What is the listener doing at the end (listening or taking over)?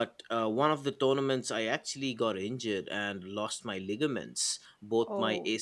listening